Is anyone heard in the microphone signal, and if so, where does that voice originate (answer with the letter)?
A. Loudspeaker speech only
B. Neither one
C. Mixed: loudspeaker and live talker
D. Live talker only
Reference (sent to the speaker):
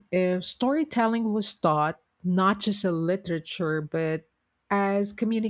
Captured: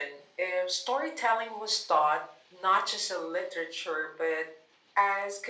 A